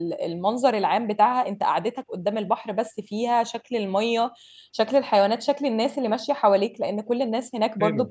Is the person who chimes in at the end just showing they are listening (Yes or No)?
Yes